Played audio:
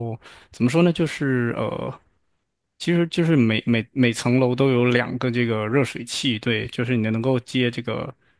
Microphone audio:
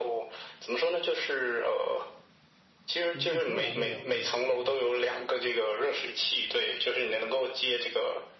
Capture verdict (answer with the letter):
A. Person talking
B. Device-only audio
A